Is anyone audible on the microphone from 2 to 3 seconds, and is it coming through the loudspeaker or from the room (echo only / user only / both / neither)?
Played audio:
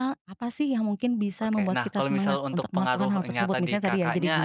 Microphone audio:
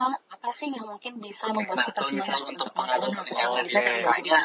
echo only